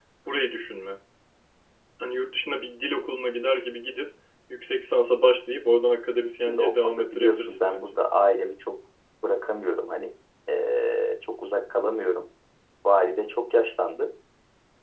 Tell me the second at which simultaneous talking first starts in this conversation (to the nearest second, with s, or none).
6 s